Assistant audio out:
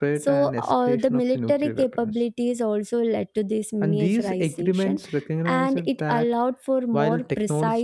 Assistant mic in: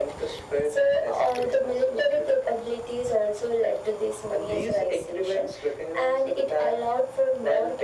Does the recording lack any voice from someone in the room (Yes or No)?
Yes